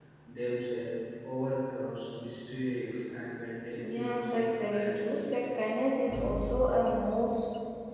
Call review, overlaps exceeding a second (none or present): present